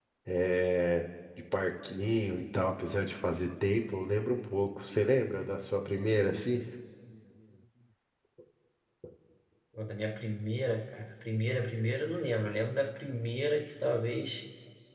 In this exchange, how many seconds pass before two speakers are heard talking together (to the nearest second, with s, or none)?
none